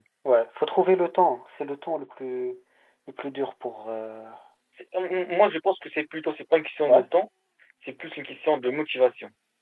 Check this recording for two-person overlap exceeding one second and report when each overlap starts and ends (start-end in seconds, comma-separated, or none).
none